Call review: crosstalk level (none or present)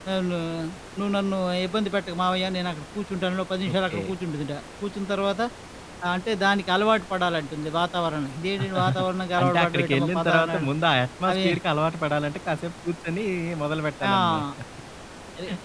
present